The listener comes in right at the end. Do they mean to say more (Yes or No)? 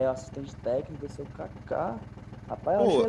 No